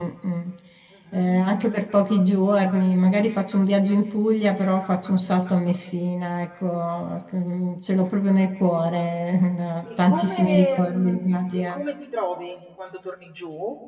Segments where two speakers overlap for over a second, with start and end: 10.0-11.8

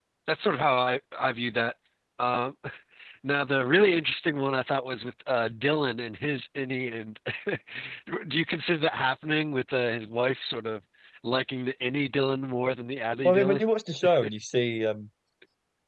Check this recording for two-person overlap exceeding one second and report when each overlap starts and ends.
none

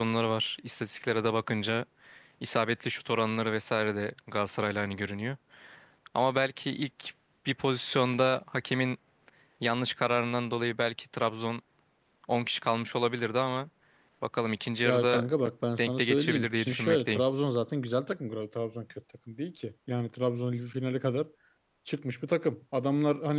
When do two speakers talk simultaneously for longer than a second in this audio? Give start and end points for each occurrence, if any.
15.8-17.2

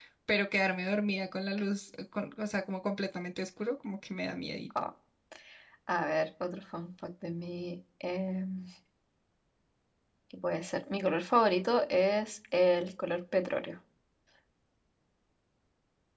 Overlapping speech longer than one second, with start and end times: none

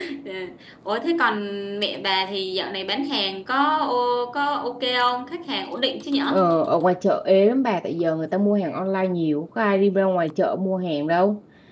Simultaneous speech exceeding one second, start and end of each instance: none

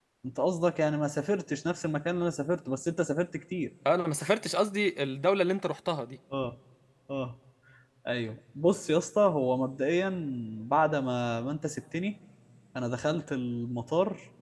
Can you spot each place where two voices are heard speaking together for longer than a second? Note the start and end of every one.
none

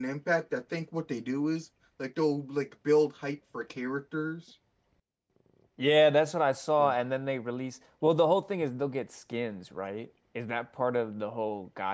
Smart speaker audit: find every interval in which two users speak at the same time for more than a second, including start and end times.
none

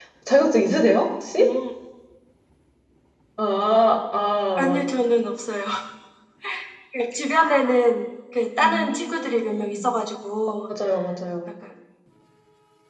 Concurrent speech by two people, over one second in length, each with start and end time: 8.6-9.8

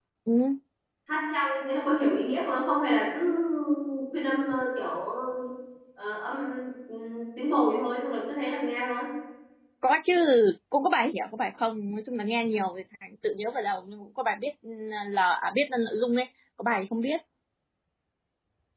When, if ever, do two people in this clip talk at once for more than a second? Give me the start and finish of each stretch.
none

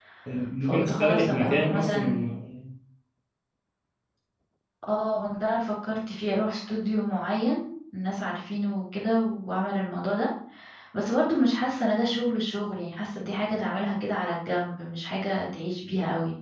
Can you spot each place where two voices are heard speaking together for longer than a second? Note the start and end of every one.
0.6-2.2

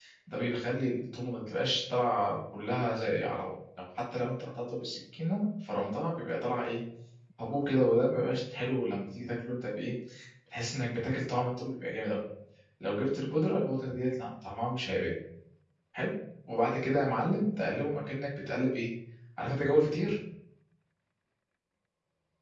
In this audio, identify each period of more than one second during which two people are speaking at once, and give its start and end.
none

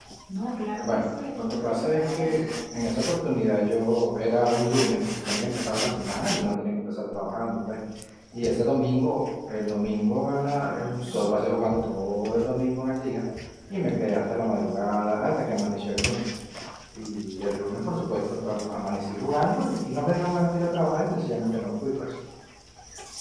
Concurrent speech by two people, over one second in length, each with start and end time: 0.8-2.5

